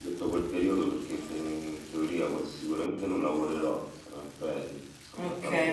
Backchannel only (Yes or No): No